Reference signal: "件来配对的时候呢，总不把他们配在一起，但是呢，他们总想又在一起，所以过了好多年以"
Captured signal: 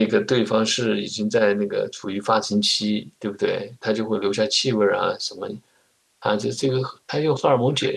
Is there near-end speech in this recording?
Yes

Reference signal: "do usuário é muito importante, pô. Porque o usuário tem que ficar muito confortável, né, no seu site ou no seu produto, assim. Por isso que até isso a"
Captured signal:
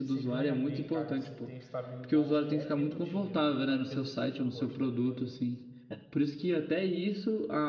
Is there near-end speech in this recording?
Yes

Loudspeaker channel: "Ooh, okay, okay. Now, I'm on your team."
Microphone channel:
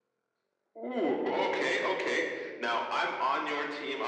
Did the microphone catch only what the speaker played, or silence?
Yes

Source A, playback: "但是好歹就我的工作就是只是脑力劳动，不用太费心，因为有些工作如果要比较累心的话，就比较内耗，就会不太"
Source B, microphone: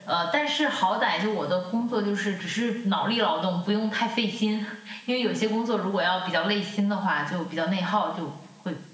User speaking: No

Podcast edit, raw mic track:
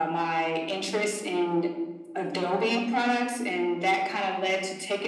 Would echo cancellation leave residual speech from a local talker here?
No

